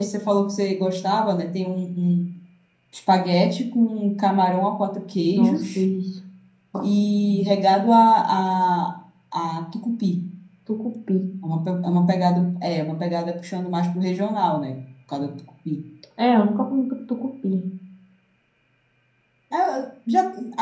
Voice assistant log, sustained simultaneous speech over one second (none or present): none